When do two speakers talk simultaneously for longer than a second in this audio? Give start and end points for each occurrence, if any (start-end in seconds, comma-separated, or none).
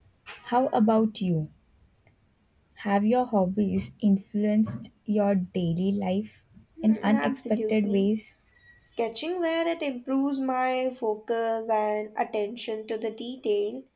6.8-8.1